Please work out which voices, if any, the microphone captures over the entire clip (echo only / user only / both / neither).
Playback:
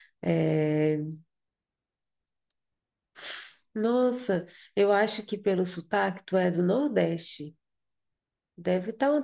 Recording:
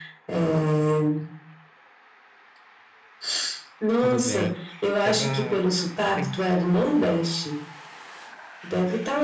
both